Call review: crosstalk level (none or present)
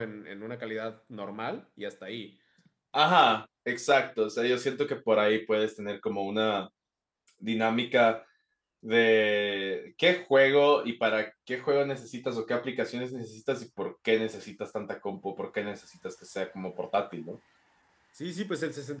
none